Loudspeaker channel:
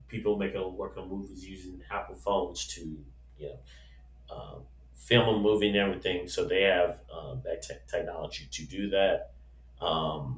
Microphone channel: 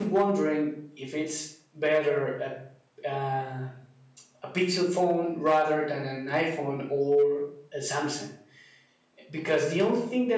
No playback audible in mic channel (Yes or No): Yes